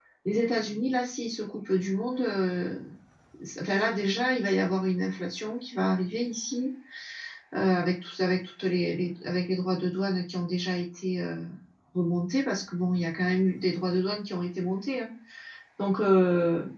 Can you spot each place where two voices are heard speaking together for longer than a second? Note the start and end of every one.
none

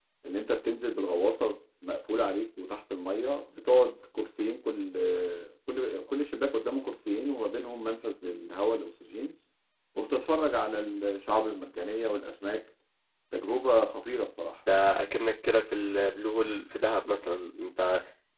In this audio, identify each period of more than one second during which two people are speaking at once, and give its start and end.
none

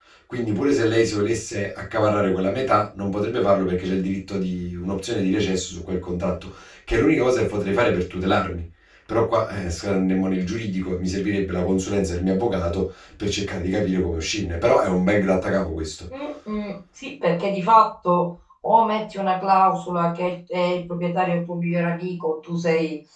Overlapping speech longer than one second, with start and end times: none

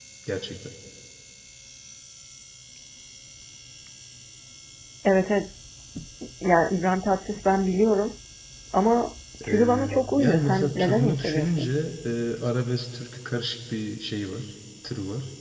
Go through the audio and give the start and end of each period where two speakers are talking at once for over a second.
9.5-11.7

